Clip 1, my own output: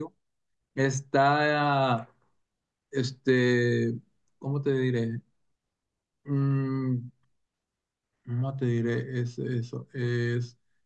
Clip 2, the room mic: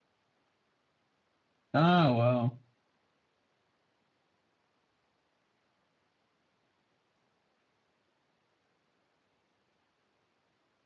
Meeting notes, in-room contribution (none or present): present